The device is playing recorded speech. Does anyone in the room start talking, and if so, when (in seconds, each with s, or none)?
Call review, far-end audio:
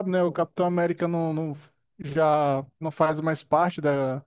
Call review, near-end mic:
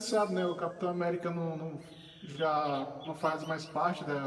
none